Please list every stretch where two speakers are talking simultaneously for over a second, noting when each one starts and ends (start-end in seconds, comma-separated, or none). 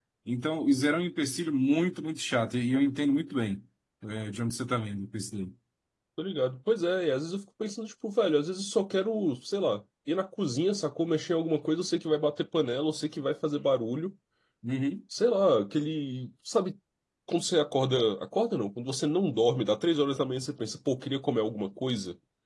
none